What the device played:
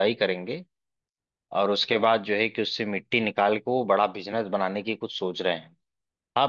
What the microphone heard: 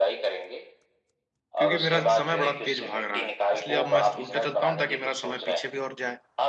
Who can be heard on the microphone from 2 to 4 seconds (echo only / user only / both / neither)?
both